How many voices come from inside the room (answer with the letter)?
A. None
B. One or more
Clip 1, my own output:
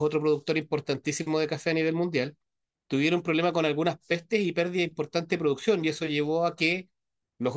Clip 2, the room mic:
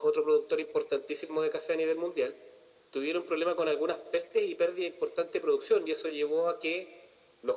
A